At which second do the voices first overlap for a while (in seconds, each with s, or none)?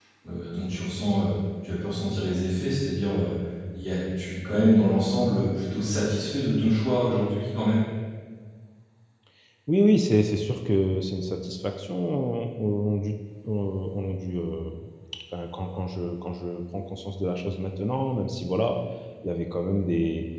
none